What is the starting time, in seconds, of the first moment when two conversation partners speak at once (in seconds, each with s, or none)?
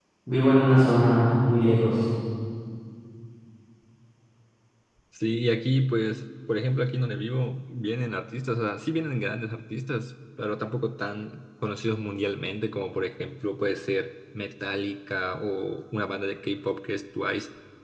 none